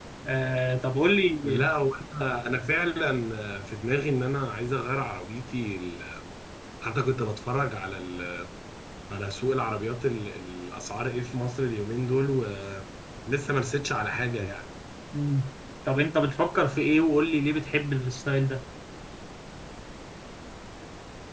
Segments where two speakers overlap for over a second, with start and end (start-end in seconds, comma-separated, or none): none